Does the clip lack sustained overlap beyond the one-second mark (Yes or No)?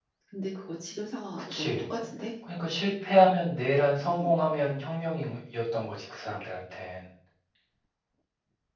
Yes